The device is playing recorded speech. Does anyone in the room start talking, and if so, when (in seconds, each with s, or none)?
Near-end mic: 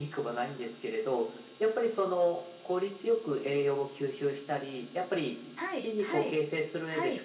5.5 s